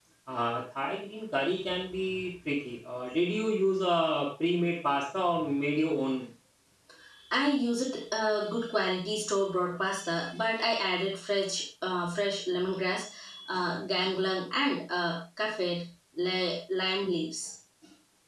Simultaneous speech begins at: none

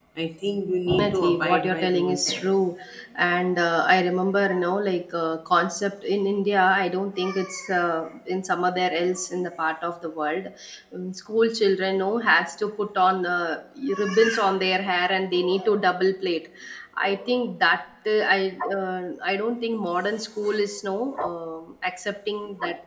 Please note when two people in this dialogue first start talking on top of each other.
1.0 s

